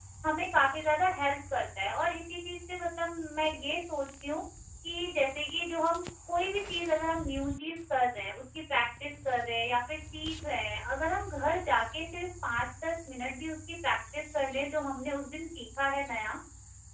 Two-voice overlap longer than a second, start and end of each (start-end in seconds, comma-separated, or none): none